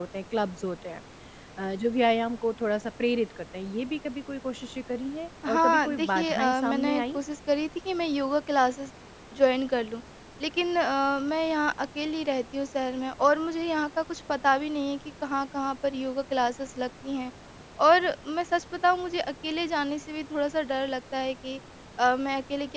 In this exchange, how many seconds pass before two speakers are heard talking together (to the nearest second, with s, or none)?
5 s